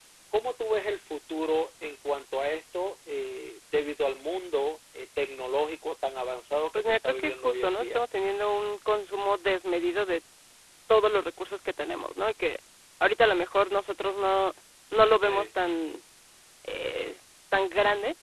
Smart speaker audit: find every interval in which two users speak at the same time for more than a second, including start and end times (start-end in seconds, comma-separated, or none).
6.7-8.0